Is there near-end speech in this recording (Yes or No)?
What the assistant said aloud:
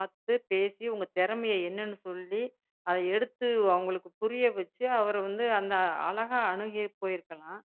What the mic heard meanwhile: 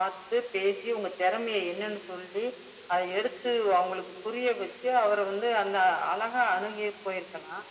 No